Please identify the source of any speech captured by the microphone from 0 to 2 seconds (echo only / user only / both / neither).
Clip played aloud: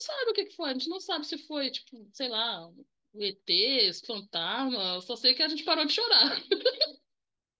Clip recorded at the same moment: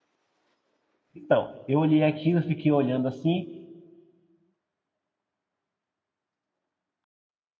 user only